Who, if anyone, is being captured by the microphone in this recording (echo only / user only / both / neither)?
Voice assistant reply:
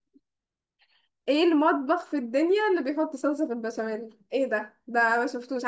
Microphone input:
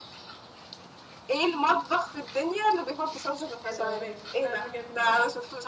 both